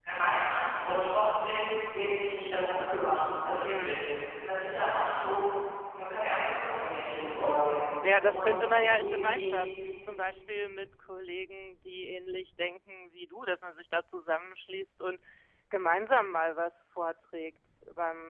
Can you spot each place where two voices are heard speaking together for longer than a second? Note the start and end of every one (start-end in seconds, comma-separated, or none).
8.2-9.5